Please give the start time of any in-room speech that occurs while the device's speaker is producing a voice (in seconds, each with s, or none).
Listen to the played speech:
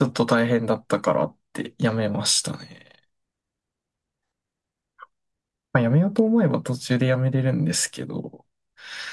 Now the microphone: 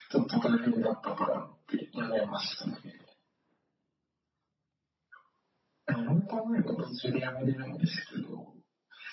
none